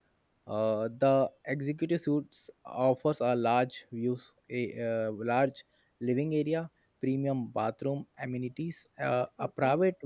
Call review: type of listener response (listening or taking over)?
listening